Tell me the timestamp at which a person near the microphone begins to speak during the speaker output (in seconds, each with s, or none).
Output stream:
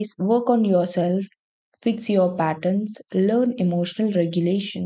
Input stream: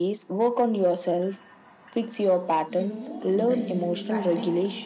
2.7 s